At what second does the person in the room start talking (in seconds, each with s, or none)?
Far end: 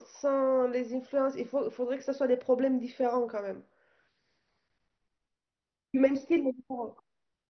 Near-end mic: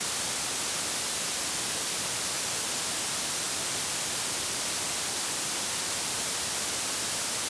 none